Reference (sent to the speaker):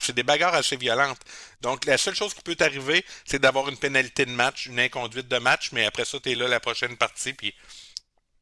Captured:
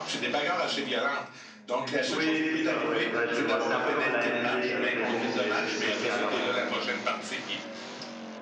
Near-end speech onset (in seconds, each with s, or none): 1.7 s